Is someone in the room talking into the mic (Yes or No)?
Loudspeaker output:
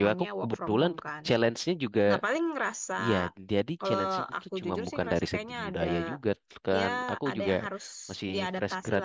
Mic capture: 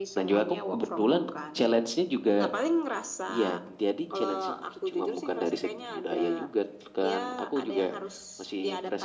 No